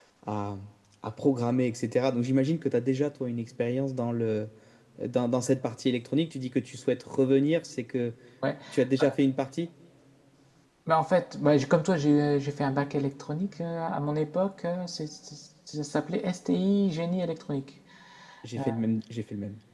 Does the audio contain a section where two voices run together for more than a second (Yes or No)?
No